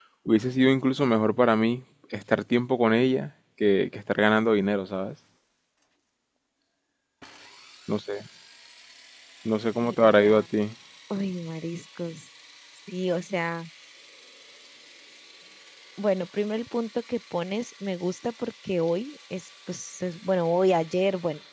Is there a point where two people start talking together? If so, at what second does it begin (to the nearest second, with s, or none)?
none